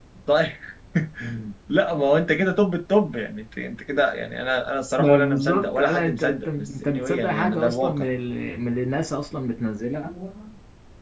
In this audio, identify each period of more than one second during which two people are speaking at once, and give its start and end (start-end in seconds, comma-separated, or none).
5.0-8.0